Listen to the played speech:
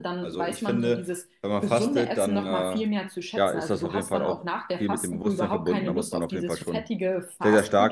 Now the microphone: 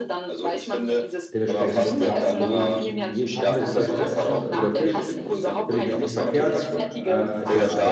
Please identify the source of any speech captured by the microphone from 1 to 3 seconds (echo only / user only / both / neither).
both